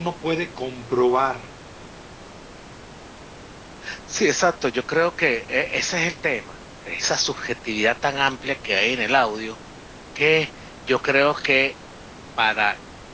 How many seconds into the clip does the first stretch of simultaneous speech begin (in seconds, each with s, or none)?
none